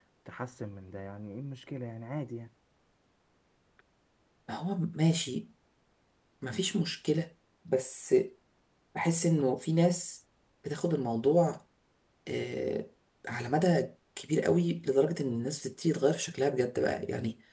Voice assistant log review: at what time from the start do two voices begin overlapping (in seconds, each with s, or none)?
none